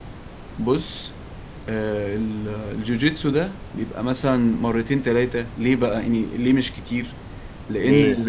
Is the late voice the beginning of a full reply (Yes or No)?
No